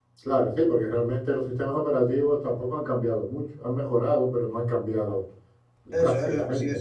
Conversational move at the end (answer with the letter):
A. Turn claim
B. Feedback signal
A